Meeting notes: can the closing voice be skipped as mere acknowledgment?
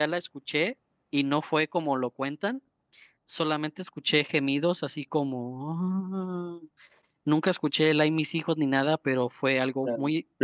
No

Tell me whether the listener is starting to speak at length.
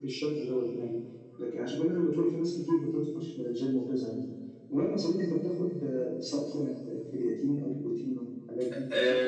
Yes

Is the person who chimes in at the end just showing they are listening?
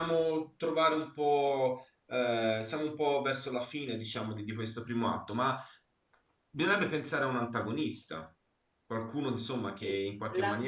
No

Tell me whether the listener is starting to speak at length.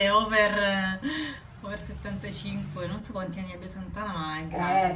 Yes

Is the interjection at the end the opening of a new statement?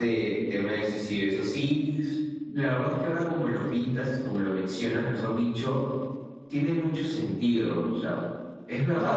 Yes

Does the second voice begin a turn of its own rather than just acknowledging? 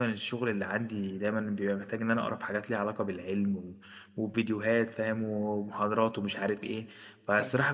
No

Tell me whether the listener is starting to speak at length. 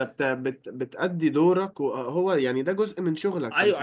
Yes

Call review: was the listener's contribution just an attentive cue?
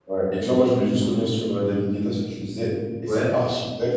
Yes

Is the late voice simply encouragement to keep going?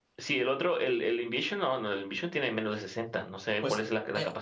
No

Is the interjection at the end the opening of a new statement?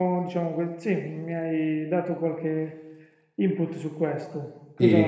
Yes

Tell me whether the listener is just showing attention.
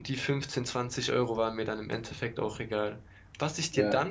Yes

